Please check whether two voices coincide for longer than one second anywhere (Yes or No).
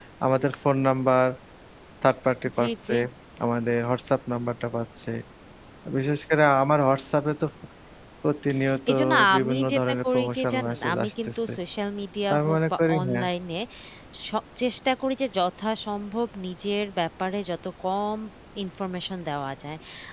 Yes